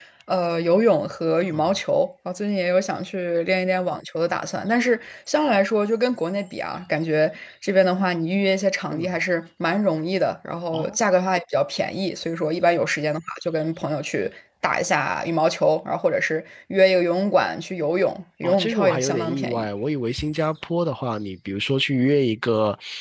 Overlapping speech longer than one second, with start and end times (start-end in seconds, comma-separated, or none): 18.4-19.7